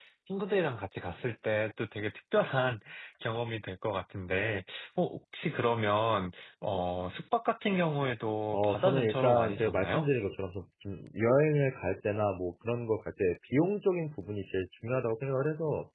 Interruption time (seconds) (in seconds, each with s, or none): 8.5 s